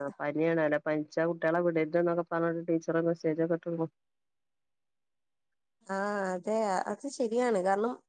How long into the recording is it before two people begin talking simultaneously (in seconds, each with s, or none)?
none